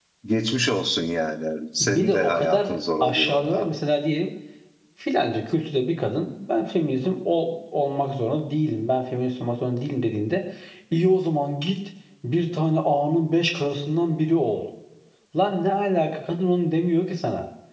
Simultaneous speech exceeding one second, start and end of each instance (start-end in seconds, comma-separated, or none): 1.8-3.7